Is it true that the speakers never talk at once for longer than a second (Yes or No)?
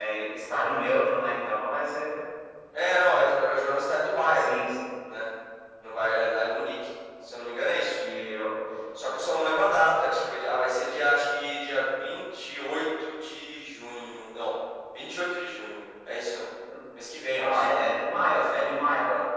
Yes